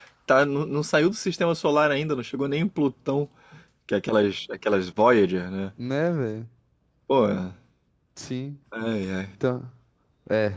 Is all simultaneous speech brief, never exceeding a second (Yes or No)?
Yes